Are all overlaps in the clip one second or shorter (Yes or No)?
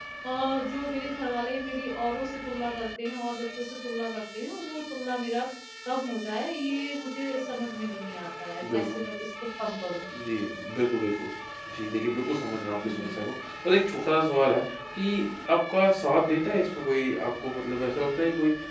Yes